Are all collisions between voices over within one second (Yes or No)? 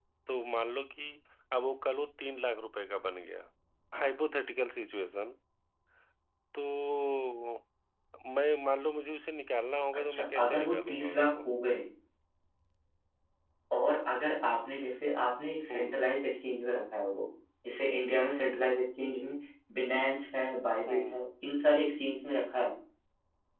No